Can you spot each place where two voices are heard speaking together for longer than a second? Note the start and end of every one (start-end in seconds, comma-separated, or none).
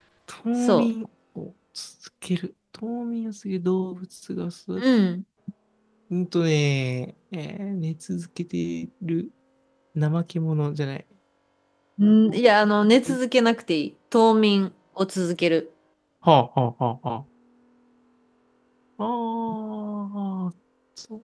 none